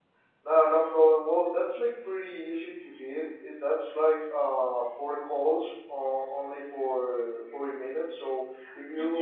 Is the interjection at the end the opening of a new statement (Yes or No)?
No